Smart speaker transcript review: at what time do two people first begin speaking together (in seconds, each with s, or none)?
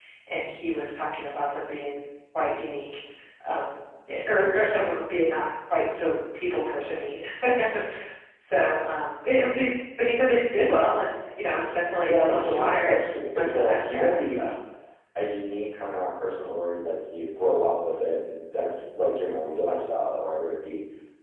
12.0 s